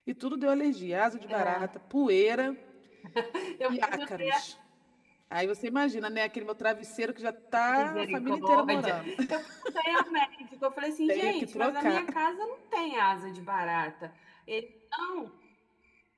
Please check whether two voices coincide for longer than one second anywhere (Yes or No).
Yes